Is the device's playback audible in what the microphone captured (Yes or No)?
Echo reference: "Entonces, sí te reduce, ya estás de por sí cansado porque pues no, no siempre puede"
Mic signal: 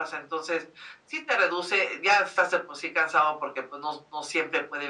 Yes